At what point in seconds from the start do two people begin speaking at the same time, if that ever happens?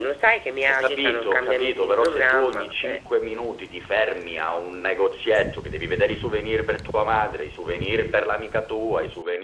1 s

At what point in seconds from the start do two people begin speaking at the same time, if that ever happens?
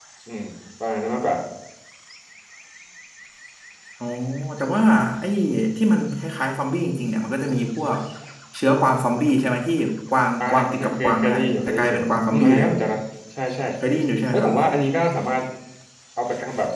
10 s

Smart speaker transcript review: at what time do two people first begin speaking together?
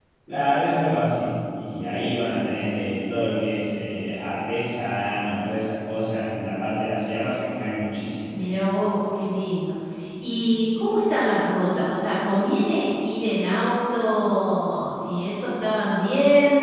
none

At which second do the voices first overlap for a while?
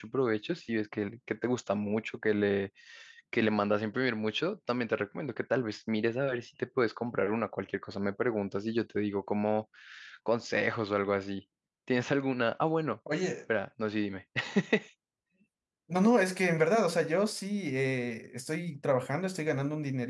none

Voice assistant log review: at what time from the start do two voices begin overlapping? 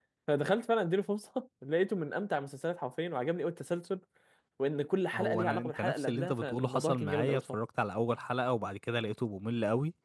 5 s

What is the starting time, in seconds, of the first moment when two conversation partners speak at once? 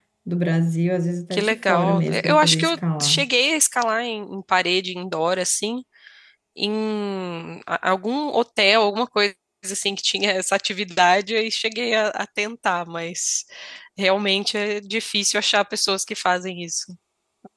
1 s

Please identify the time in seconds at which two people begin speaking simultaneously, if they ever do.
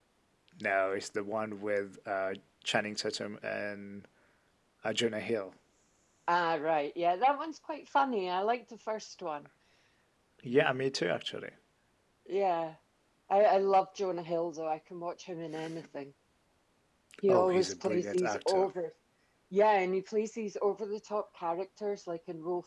17 s

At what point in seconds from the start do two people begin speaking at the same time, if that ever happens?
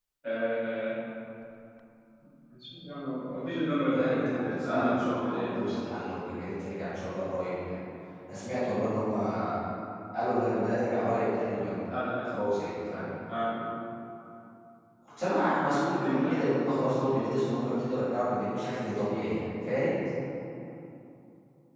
4 s

